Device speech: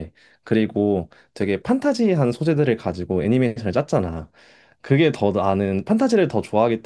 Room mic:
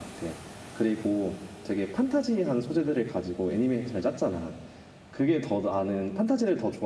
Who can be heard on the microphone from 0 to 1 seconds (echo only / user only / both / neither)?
echo only